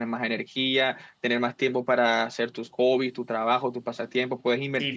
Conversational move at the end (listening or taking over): taking over